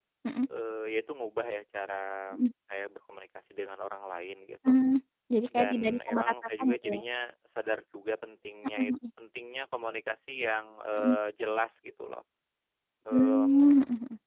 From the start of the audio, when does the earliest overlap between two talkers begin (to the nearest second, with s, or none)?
6 s